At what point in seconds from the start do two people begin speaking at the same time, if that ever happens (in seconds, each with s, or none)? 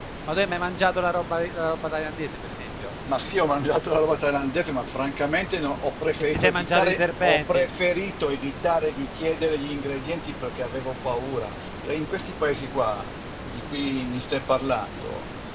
6.2 s